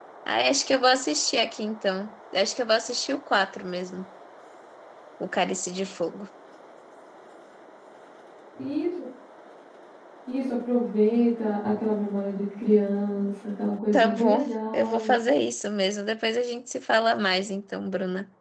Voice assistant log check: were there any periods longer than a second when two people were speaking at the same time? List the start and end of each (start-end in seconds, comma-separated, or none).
13.9-15.1